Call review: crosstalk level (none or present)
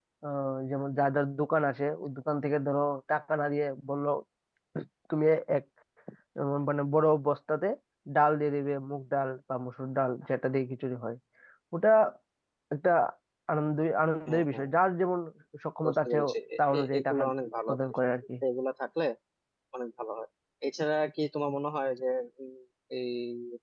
present